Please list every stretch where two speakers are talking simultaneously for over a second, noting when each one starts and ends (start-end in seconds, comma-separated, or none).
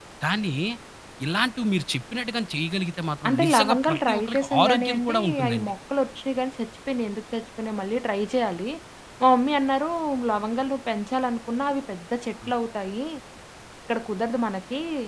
3.3-5.7